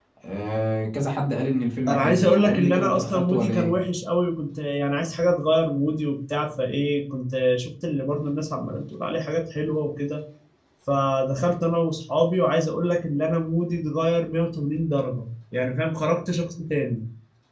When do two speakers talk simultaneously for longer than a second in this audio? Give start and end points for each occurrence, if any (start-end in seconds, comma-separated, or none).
1.9-3.7